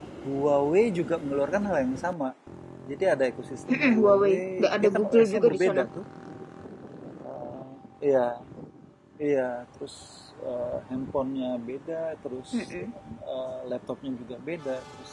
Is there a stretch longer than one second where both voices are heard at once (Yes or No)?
Yes